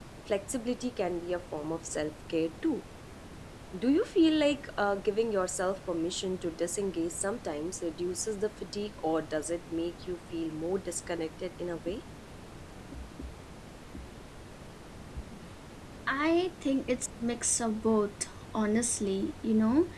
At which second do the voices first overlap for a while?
none

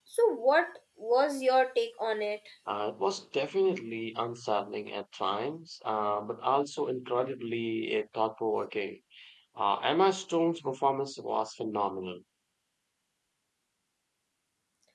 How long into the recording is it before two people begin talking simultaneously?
none

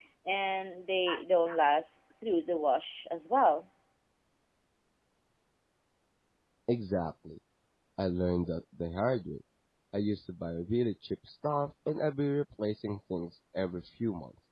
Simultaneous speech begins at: none

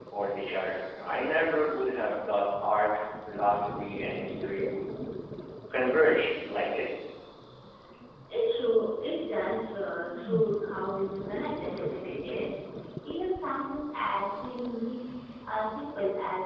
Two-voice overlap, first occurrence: none

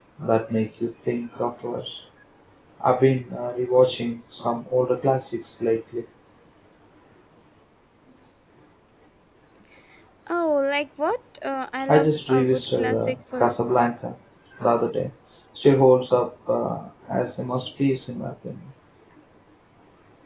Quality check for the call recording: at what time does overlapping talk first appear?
11.9 s

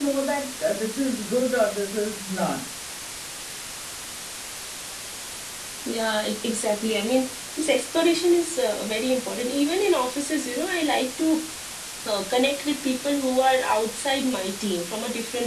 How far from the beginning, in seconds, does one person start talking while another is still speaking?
none

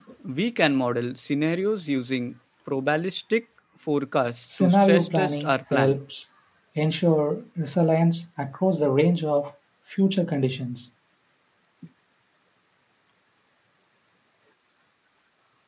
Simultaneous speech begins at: 4.5 s

